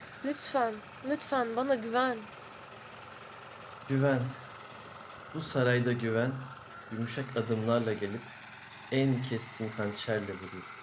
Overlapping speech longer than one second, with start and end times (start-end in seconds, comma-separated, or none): none